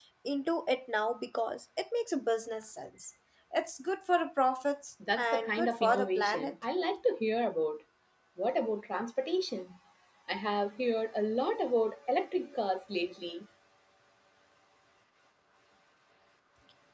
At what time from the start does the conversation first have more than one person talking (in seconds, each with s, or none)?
5.0 s